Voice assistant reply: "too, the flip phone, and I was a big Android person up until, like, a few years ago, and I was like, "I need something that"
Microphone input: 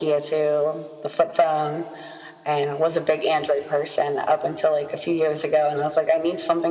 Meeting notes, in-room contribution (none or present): none